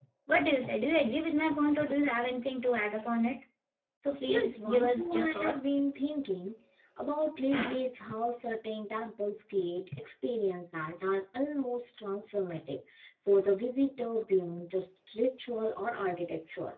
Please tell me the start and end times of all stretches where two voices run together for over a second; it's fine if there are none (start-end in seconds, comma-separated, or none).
4.3-5.7